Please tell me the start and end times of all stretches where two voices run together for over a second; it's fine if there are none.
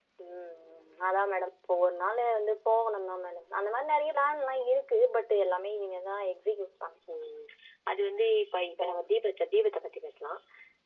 none

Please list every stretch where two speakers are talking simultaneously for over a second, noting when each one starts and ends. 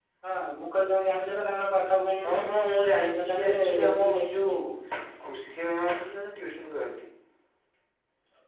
3.0-4.5

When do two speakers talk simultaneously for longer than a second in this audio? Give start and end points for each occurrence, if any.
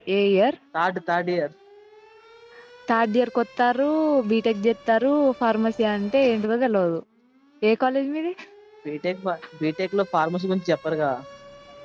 none

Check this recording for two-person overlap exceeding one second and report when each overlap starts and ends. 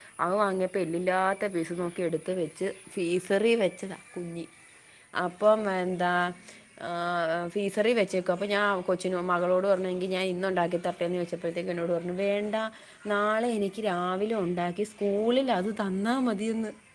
none

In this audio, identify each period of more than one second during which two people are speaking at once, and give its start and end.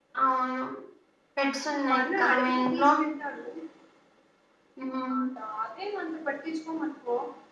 1.6-2.9

